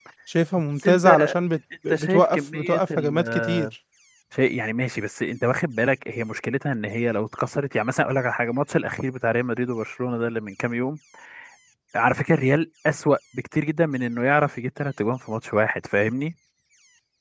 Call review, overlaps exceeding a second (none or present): present